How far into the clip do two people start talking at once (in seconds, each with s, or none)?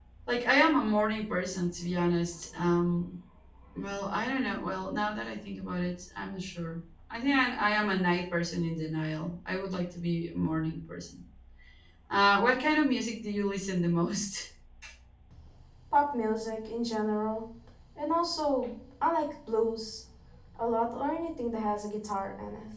none